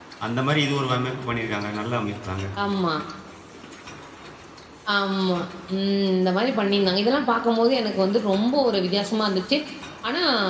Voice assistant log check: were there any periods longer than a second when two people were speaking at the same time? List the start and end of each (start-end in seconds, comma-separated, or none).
none